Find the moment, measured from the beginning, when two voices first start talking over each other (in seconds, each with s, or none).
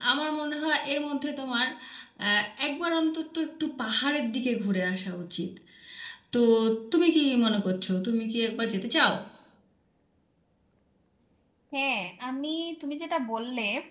none